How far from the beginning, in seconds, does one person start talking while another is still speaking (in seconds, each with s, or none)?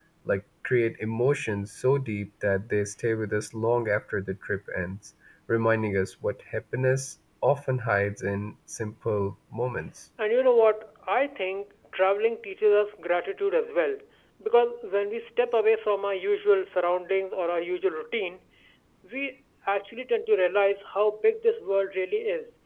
none